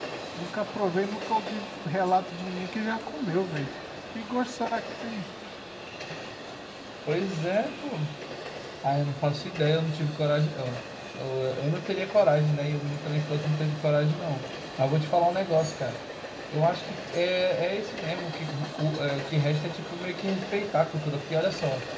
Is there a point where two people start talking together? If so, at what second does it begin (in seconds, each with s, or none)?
none